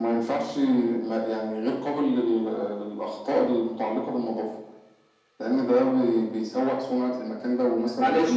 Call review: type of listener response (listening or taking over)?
taking over